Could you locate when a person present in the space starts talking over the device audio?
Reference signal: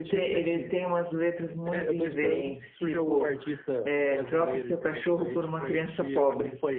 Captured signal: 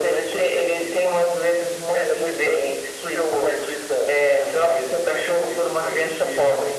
none

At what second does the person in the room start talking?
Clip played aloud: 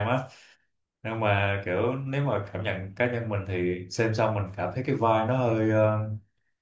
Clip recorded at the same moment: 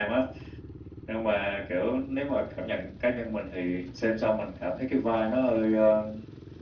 none

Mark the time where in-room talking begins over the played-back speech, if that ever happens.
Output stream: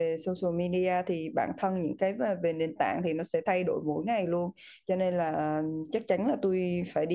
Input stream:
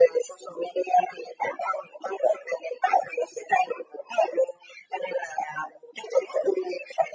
none

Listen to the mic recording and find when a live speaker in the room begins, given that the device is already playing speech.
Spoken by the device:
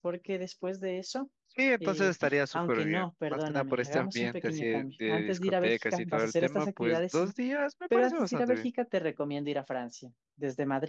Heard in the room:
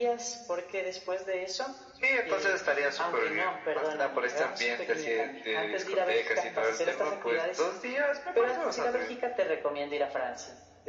none

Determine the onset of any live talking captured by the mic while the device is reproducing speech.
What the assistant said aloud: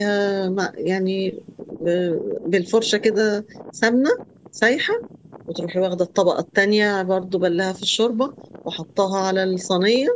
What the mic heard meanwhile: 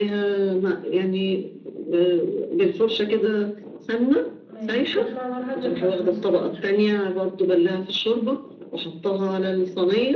4 s

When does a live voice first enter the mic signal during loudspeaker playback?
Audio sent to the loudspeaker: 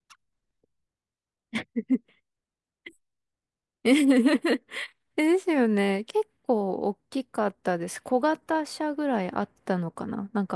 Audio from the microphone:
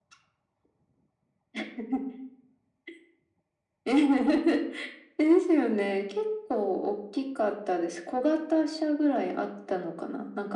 none

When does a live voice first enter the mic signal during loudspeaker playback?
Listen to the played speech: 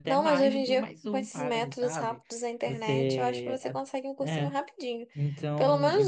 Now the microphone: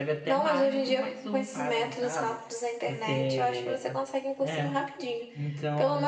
none

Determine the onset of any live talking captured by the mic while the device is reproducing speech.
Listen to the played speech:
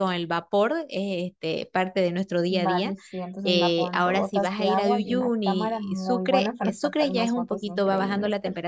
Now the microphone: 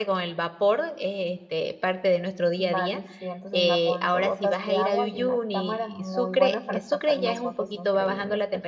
none

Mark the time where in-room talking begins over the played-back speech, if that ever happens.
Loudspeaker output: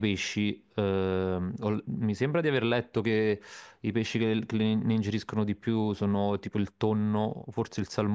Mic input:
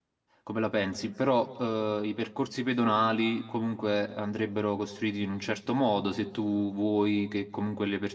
0 s

